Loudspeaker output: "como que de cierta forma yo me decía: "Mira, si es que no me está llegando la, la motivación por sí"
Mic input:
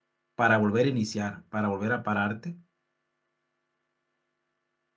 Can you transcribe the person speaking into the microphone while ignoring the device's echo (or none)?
para volver a iniciar, para volver a pararte.